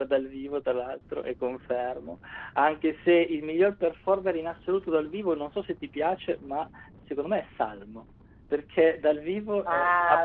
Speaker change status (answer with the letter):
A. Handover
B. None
A